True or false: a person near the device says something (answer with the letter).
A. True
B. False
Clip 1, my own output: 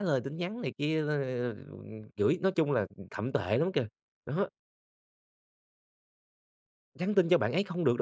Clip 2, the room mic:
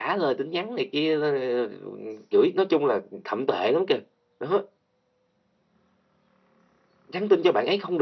B